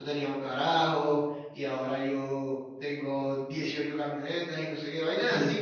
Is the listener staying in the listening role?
Yes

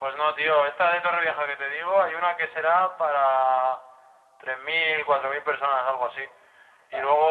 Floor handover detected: No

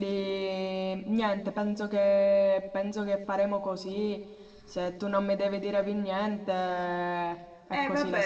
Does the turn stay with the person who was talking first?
No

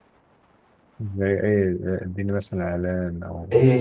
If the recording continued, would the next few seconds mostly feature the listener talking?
Yes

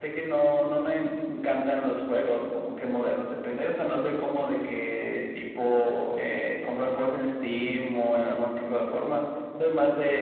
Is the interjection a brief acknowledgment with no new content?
Yes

